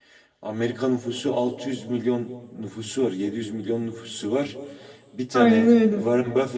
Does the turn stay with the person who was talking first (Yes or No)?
Yes